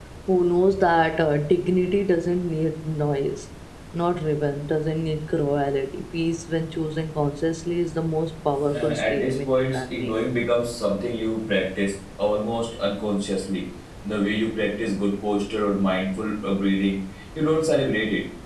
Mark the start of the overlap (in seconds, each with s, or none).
8.7 s